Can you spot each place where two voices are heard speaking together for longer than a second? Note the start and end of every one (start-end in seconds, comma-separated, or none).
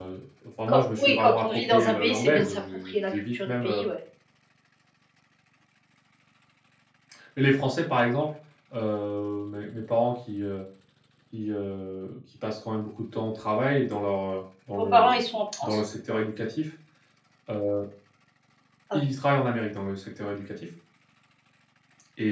0.7-3.8